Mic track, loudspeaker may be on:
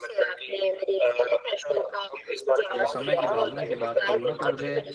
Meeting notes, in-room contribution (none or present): present